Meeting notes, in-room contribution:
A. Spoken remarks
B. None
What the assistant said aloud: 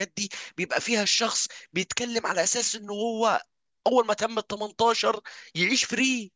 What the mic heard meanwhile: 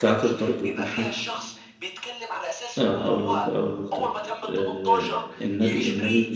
A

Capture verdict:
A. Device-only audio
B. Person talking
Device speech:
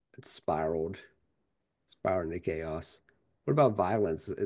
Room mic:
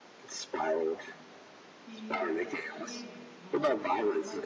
B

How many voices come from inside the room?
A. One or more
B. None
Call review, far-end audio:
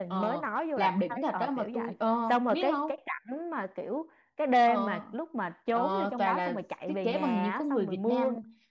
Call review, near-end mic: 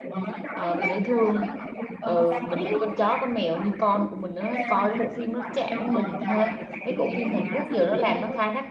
A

